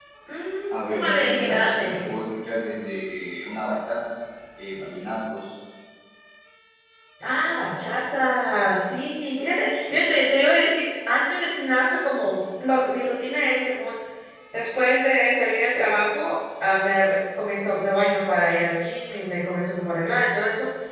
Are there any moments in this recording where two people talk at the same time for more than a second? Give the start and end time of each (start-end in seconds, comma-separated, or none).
0.7-2.1